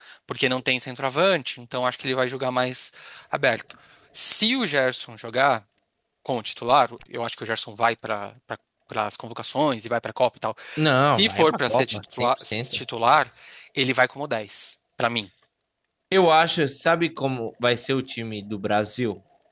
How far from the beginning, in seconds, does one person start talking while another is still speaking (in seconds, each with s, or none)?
10.9 s